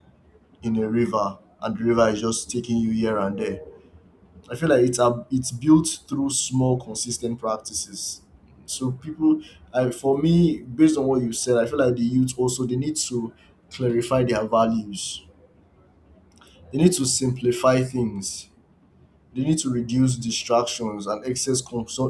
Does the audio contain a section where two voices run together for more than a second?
No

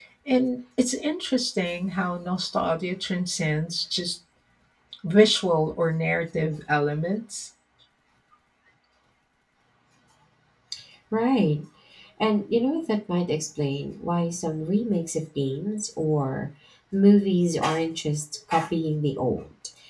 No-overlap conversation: Yes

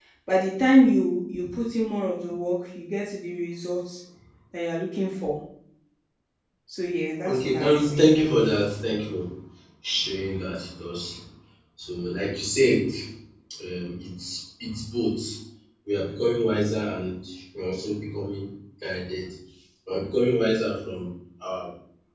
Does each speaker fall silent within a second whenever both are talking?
No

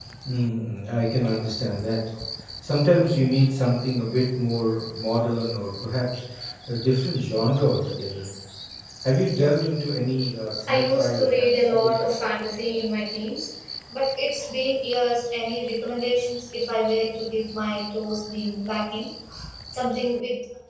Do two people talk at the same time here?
Yes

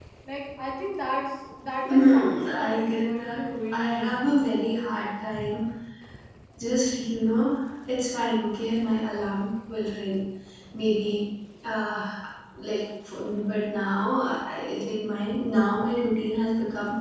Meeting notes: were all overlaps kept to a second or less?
No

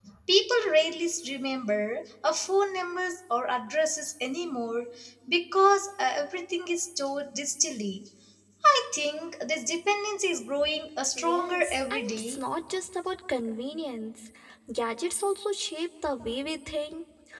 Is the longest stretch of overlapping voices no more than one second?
No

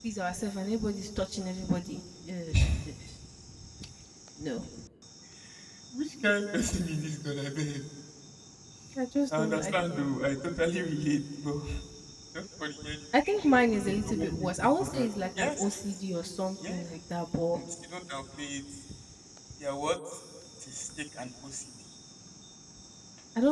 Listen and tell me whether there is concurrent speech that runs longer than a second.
Yes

